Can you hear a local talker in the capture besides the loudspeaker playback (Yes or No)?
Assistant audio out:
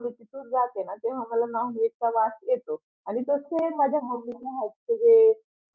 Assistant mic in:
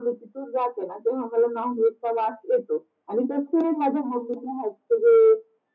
No